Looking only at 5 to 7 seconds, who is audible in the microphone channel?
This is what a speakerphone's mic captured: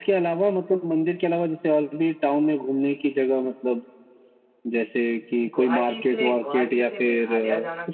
both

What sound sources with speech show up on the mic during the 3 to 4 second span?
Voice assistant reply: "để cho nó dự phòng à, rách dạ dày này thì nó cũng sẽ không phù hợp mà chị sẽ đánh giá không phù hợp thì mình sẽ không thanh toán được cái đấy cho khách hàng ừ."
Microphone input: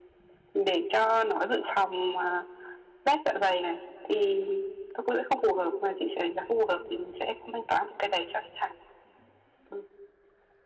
echo only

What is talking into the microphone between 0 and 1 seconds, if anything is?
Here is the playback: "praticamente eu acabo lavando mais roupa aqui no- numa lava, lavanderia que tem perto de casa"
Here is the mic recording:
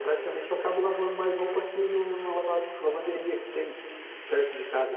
echo only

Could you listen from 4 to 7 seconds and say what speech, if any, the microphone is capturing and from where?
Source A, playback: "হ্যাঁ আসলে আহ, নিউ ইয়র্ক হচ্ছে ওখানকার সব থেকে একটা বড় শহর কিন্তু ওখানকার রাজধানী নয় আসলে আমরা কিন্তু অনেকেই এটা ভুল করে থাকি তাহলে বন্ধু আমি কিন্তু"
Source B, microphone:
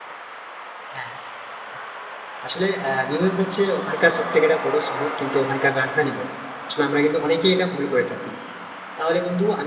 echo only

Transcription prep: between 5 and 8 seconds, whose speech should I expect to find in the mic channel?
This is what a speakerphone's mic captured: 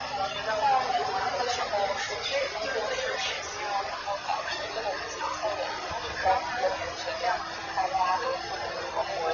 echo only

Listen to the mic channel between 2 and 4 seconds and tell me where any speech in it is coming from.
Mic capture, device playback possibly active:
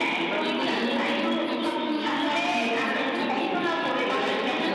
both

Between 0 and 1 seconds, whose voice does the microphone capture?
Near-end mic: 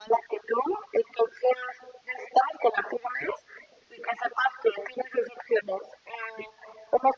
echo only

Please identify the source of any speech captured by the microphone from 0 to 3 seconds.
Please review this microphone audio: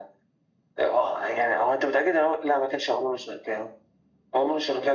echo only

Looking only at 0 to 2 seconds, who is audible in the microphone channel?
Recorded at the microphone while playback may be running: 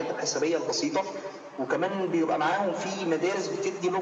echo only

